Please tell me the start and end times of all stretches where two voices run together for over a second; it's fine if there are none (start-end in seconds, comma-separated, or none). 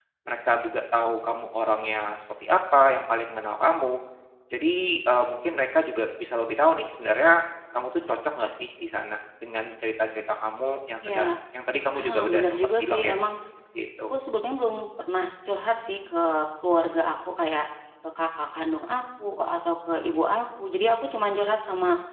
11.9-13.1